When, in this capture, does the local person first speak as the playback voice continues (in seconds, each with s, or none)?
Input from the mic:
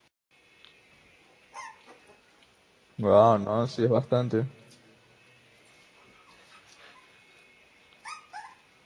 3.0 s